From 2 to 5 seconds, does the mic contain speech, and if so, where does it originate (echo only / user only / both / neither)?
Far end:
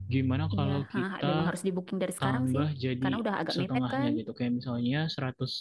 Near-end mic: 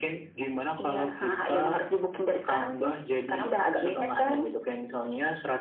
echo only